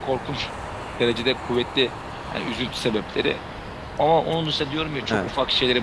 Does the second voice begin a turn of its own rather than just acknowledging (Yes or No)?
No